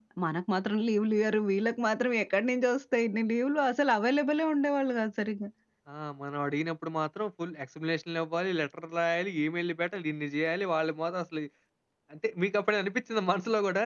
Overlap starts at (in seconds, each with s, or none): none